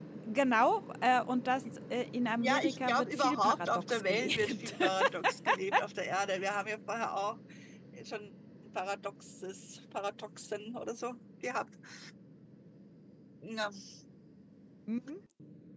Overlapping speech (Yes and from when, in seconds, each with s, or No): Yes, from 2.4 s